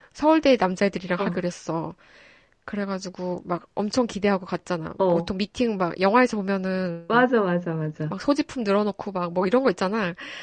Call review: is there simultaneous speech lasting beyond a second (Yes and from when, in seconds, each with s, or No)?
No